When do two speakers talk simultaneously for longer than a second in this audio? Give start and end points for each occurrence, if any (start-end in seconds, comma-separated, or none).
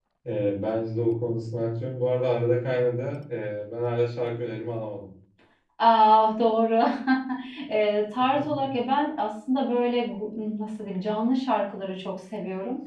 none